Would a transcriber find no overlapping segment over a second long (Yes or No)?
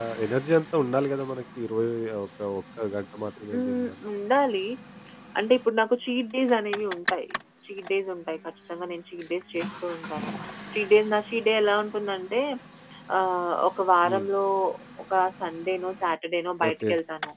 Yes